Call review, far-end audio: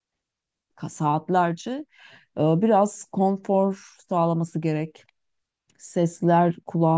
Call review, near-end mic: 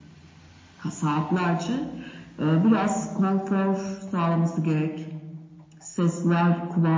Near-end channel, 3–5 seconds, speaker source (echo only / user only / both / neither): echo only